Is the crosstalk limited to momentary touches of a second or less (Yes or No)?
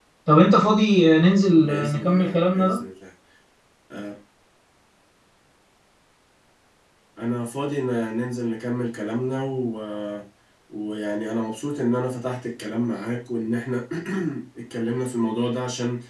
No